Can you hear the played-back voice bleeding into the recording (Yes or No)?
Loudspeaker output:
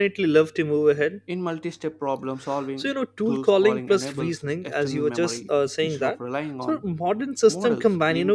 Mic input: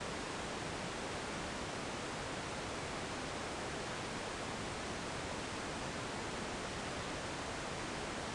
No